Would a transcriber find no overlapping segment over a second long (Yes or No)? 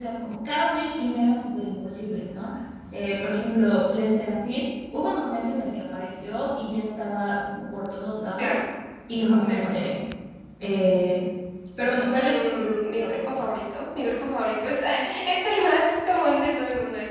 No